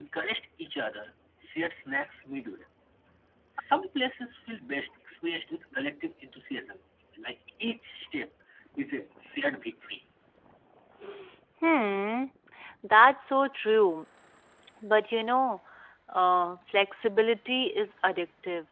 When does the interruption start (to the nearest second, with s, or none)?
none